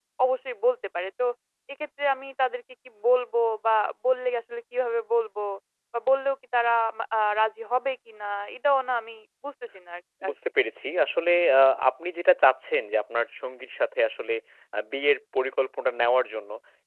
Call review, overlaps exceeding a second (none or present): none